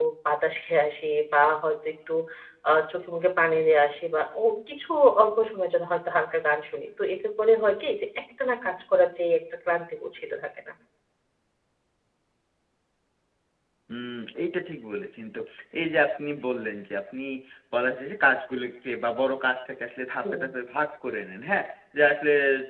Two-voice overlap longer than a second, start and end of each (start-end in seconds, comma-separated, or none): none